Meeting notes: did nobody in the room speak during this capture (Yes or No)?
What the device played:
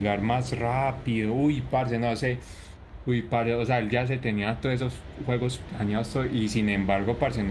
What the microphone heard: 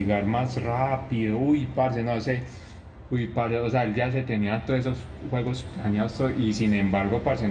Yes